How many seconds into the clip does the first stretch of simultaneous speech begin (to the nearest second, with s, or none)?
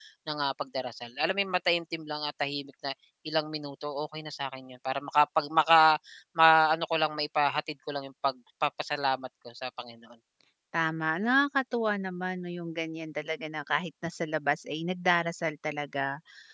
none